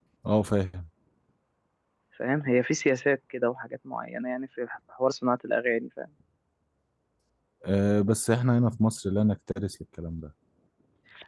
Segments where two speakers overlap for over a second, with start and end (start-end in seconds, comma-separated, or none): none